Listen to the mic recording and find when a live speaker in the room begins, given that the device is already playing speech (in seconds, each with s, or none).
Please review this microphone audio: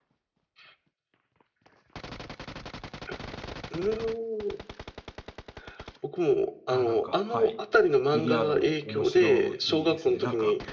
6.7 s